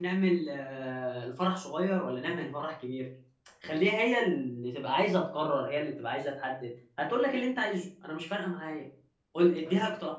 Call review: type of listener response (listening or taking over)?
listening